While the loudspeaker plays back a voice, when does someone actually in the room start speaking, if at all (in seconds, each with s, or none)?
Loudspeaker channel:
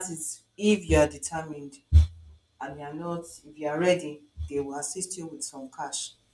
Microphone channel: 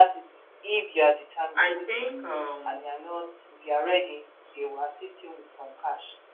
1.5 s